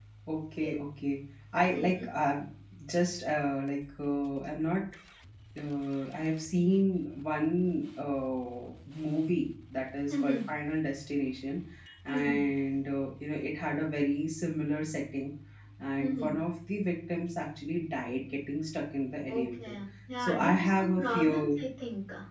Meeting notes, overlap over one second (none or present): present